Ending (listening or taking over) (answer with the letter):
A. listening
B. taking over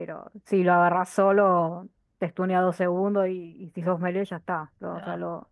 B